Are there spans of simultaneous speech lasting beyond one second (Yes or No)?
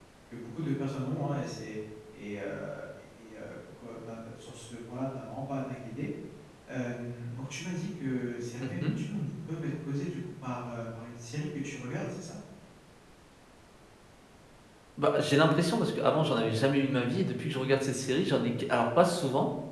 No